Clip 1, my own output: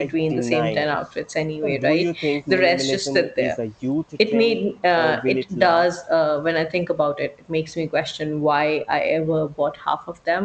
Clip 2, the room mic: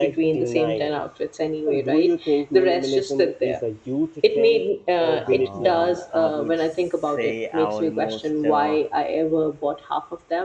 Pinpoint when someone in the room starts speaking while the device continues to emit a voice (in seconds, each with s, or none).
5.2 s